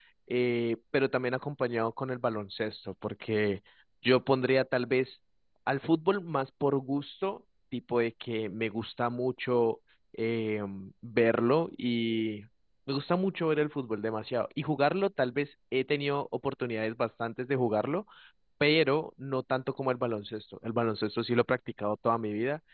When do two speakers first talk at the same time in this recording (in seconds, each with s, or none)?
none